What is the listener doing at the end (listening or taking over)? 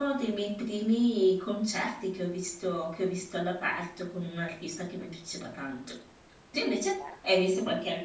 listening